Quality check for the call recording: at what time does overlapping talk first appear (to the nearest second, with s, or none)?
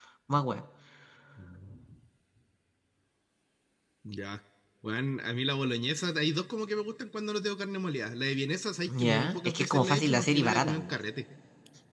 9 s